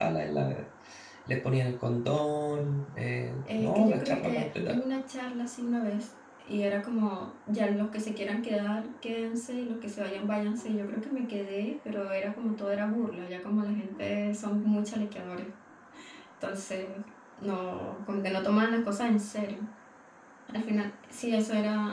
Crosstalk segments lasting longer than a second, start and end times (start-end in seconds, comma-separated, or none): 3.6-4.8